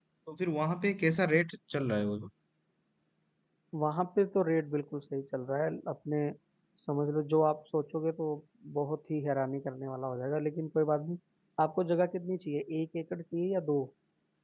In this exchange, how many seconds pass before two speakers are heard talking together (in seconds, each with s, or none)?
none